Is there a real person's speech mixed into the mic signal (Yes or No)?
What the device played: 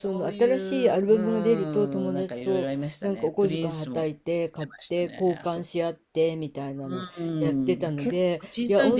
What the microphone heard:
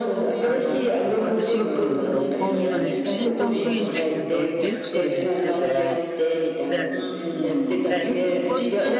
Yes